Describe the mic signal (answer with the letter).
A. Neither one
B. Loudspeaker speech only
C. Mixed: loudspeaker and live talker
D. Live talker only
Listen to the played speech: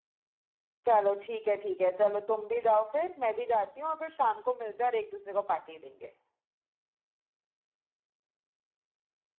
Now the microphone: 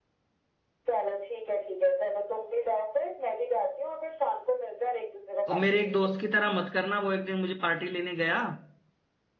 C